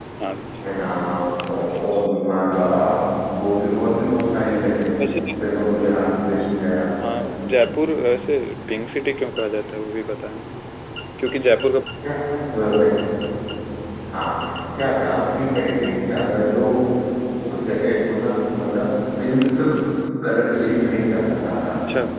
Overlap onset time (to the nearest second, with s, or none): none